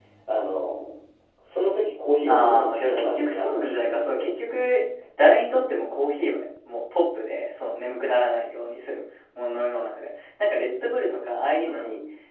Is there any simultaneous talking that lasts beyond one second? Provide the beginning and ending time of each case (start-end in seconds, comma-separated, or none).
2.2-4.3